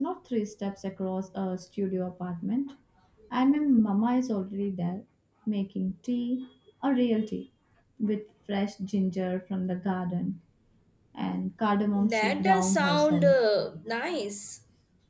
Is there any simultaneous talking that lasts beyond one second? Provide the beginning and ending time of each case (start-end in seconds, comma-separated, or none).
12.1-13.4